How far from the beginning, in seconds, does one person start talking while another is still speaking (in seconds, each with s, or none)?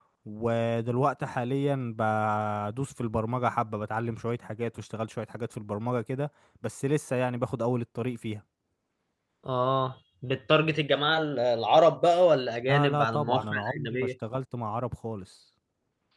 12.6 s